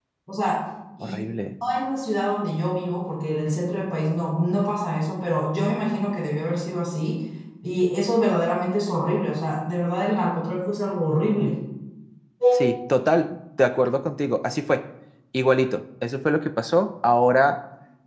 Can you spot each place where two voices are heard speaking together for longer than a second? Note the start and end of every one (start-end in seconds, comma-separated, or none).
none